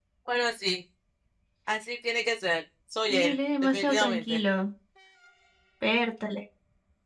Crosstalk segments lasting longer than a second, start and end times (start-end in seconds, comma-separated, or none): 3.1-4.4